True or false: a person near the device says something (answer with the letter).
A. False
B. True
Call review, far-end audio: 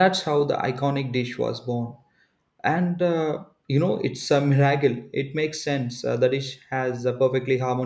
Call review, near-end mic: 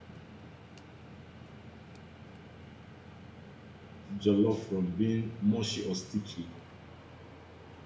B